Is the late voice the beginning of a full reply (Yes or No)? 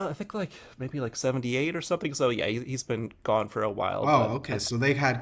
Yes